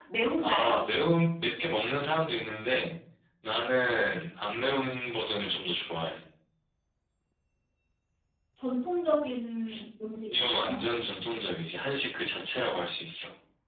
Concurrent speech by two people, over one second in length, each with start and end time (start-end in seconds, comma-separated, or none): none